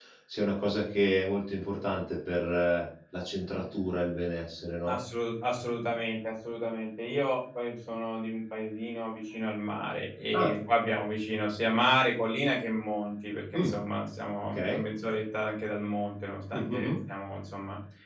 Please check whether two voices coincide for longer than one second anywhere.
No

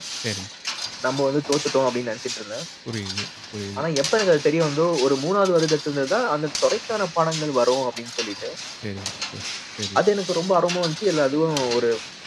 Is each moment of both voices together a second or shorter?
Yes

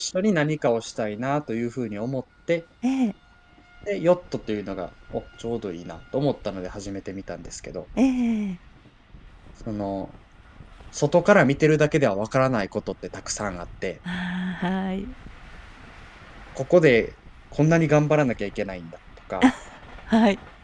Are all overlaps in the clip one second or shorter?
Yes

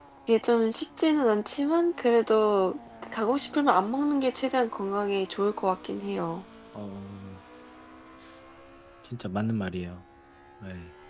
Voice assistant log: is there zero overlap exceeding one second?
Yes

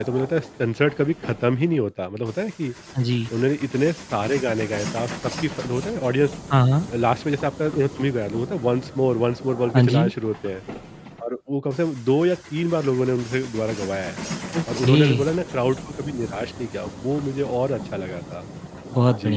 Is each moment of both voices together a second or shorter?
Yes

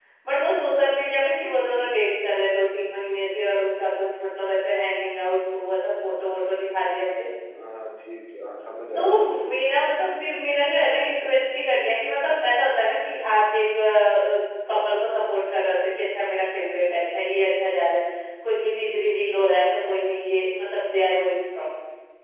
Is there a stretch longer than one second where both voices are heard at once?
No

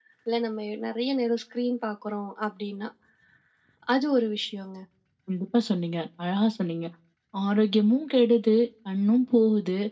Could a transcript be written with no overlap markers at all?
Yes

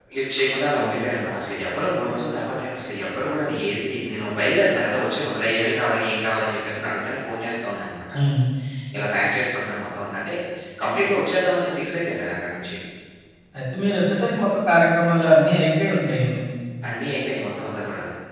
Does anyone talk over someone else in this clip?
No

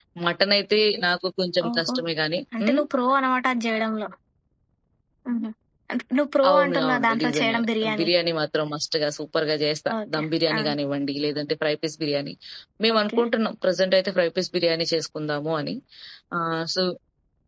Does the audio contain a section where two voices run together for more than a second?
Yes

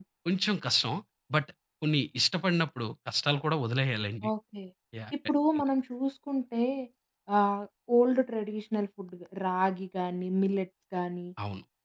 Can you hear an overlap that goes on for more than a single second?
No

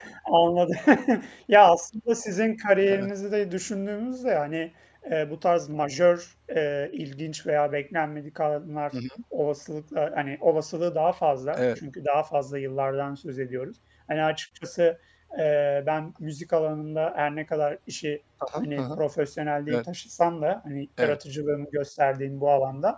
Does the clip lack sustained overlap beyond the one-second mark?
Yes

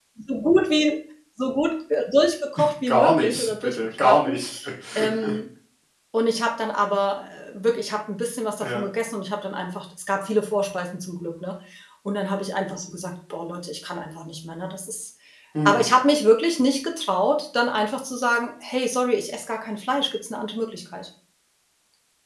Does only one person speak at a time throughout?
No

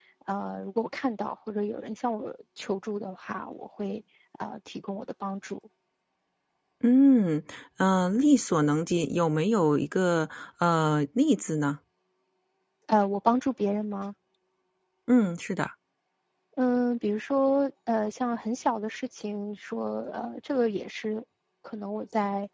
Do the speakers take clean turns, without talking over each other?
Yes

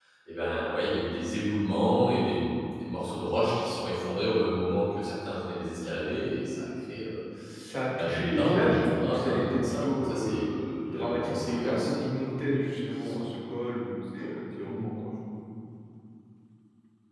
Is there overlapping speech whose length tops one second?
Yes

